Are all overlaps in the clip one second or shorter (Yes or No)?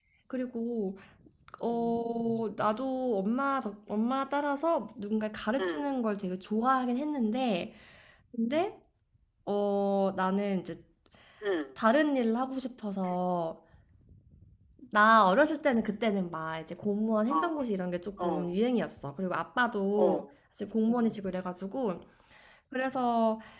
Yes